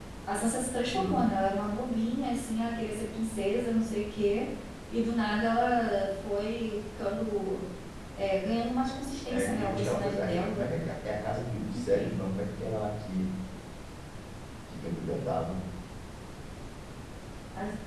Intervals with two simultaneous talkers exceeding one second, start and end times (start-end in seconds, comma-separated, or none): 9.3-10.7